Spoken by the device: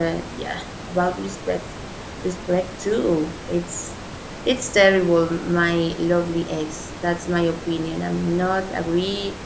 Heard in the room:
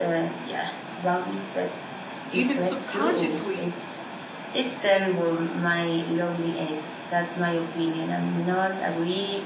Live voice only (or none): even subconsciously,